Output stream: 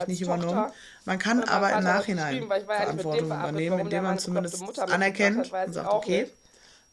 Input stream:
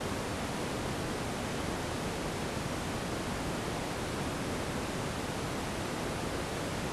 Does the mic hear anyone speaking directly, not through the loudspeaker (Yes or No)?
No